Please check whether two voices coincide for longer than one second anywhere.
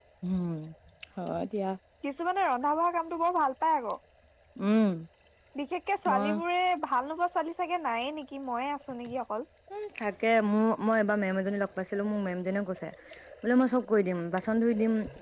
No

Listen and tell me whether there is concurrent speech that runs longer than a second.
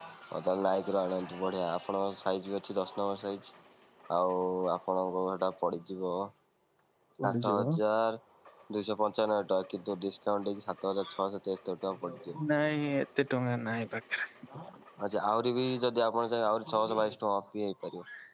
No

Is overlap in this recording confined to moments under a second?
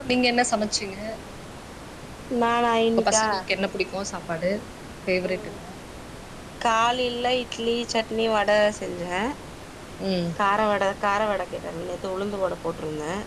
Yes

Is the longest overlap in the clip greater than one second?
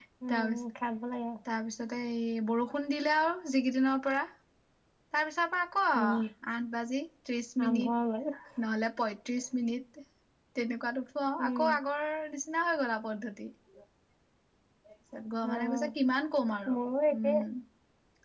No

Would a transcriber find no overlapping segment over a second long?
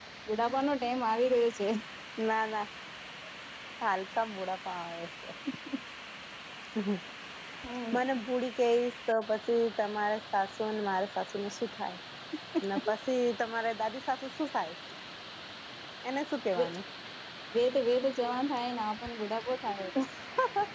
Yes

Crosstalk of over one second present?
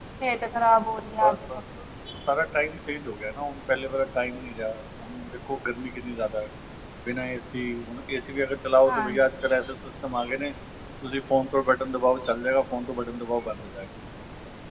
No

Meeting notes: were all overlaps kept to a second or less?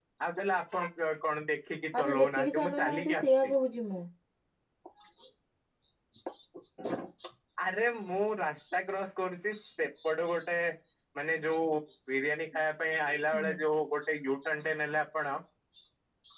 No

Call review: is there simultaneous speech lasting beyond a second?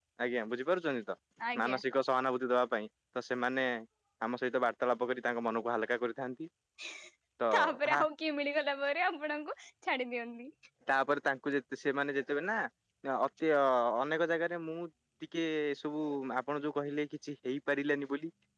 No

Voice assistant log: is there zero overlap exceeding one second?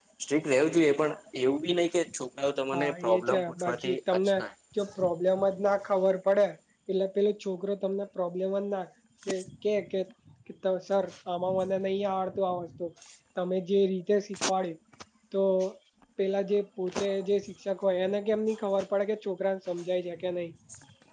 No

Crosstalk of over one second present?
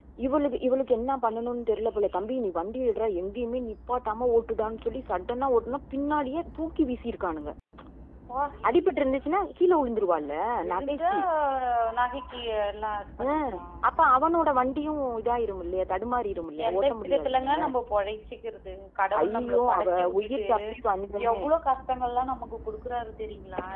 Yes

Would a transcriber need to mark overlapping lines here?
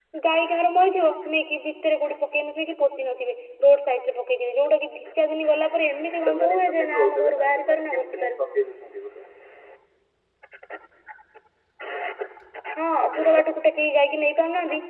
Yes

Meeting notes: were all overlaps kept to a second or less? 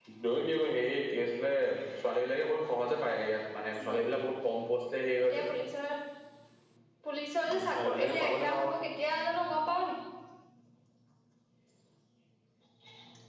No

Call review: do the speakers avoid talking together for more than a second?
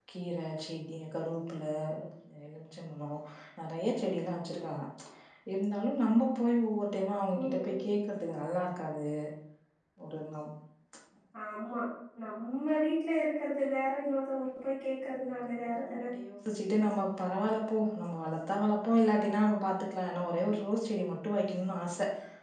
Yes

